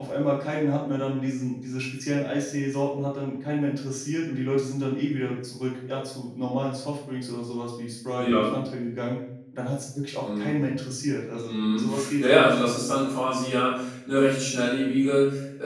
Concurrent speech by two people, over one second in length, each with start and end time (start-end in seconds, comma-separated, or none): 11.5-12.7